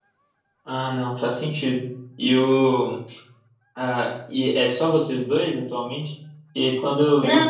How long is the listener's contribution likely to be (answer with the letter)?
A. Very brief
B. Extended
A